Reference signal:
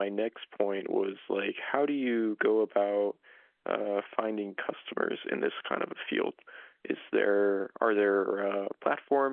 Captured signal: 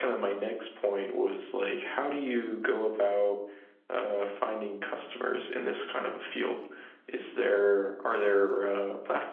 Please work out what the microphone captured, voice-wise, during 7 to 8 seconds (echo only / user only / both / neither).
echo only